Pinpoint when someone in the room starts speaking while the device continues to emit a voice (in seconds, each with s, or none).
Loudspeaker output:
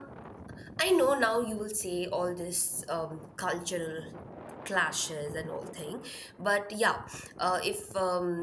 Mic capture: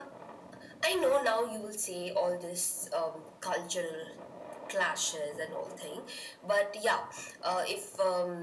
none